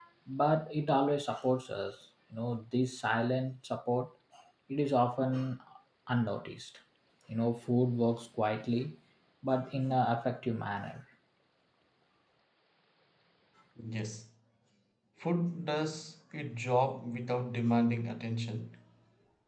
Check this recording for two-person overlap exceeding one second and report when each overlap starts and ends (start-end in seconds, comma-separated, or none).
none